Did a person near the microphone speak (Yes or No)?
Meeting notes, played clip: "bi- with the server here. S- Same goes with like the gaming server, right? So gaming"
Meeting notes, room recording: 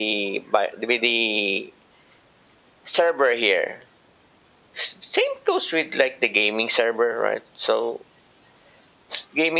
No